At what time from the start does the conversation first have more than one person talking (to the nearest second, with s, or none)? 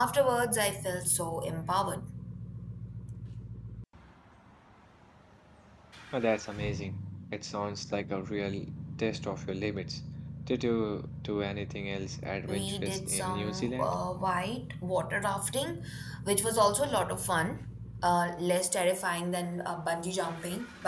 12 s